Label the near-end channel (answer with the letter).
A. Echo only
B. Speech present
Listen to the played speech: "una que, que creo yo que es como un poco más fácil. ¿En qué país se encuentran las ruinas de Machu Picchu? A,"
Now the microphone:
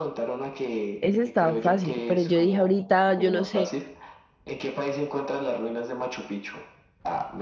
B